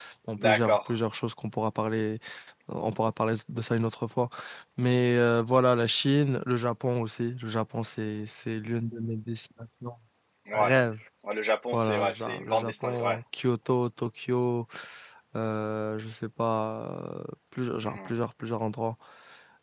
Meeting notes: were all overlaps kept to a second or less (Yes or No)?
No